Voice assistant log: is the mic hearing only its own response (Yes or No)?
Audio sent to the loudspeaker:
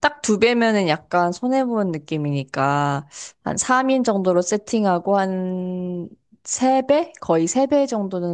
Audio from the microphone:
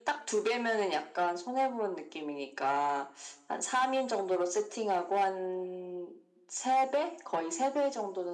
Yes